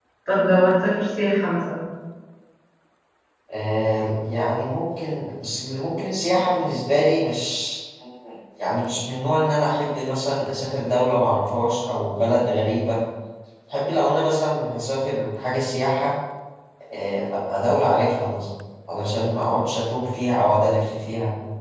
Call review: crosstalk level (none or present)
none